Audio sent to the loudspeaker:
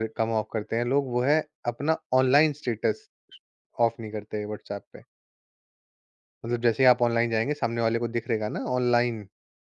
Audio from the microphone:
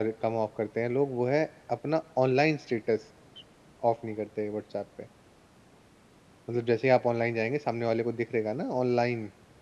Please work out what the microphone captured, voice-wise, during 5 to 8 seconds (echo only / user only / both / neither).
echo only